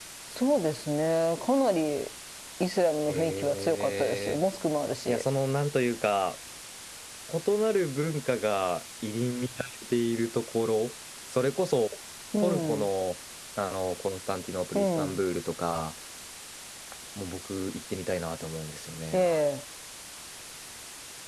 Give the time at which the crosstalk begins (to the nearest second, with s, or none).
3 s